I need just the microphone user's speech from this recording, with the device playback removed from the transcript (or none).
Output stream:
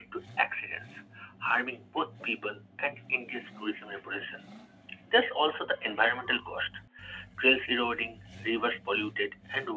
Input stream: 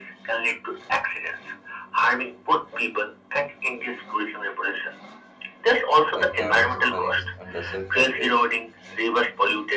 like camel safaris and desert camping.